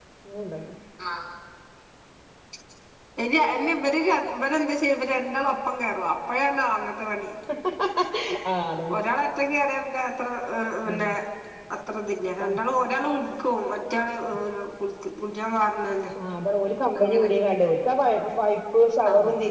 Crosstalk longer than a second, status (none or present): none